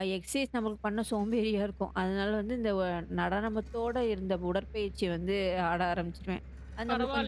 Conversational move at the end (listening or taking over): taking over